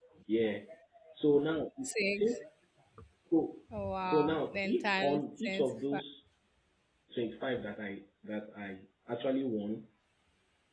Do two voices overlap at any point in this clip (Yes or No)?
Yes